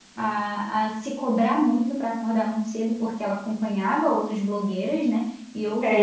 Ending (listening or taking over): taking over